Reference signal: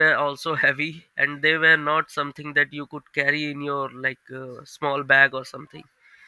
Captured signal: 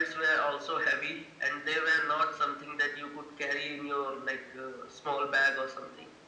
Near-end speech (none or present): none